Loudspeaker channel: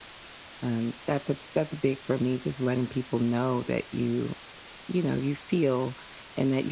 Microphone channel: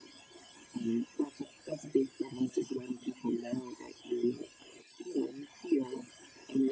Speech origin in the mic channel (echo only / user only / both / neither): echo only